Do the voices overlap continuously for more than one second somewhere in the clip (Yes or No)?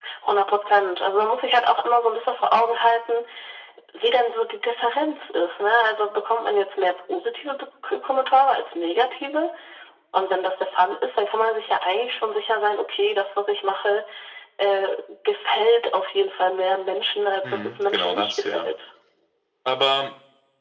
Yes